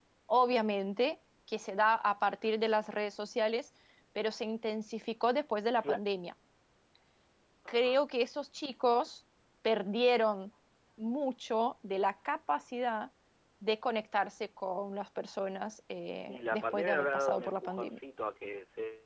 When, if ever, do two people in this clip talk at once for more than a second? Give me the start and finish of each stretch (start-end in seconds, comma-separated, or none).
16.3-18.0